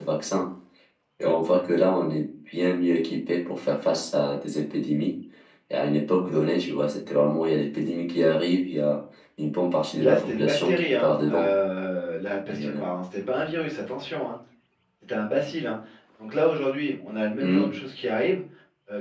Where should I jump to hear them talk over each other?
10 s

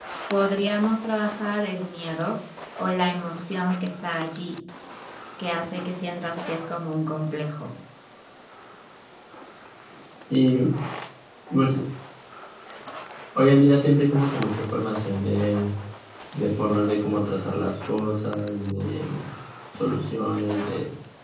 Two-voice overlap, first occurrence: none

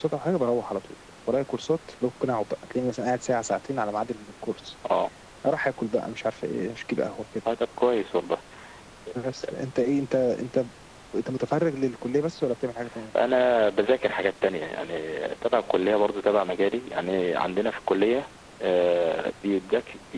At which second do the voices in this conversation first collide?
none

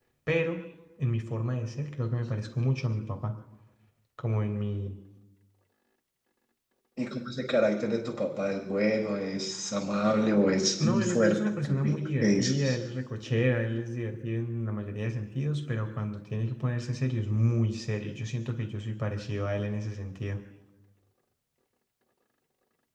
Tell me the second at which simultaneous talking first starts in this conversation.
11 s

